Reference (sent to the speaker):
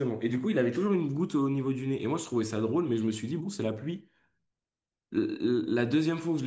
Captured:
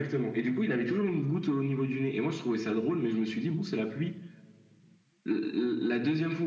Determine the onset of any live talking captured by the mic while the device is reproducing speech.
none

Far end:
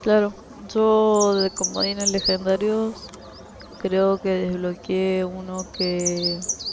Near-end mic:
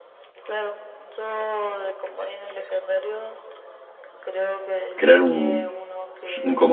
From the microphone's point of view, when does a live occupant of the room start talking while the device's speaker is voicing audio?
5.0 s

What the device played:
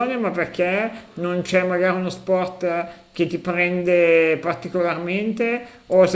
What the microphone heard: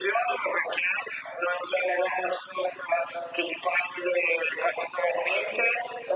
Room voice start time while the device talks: none

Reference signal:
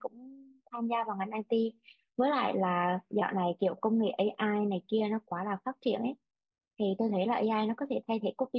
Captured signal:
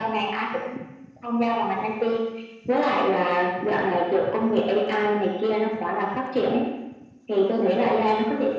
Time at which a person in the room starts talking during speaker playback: none

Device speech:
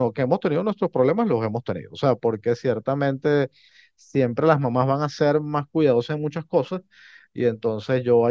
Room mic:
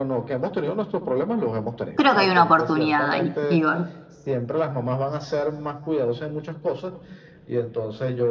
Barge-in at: 1.9 s

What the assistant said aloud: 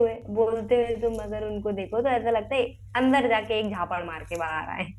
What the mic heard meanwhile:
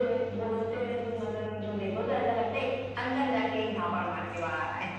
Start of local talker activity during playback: none

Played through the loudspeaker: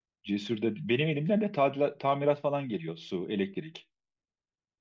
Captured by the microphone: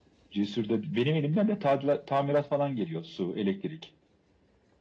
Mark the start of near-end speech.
none

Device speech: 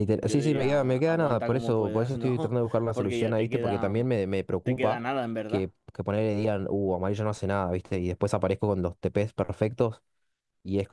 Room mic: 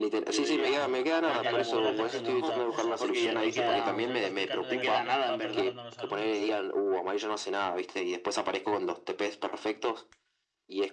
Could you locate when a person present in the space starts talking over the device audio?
0.6 s

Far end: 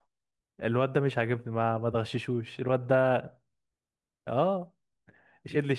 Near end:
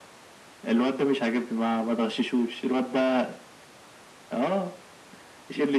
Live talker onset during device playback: none

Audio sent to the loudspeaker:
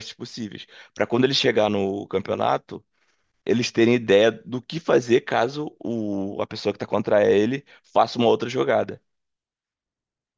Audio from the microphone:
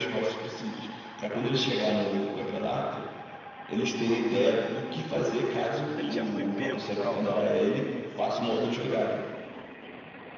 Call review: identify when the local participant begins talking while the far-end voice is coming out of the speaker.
6.0 s

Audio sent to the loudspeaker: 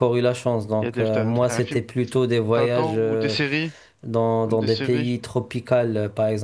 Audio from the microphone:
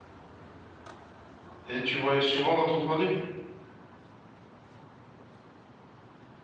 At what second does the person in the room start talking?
1.6 s

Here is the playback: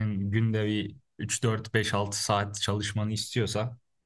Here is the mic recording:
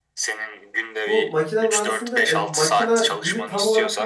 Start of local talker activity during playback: 1.1 s

